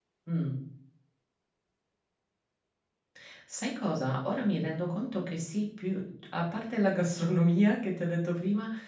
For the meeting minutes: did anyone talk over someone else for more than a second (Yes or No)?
No